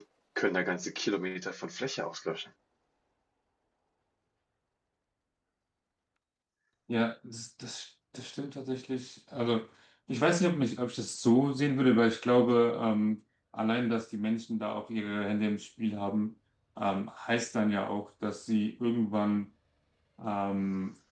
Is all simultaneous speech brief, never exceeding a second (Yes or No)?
Yes